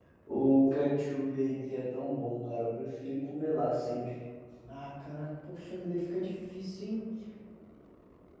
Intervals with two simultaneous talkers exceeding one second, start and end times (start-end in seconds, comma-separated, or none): none